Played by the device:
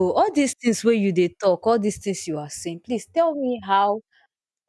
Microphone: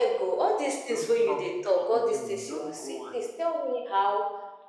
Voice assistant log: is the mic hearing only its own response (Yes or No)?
No